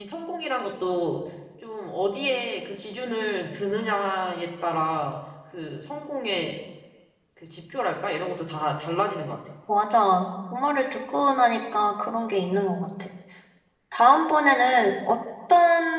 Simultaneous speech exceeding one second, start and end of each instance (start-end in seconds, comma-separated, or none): none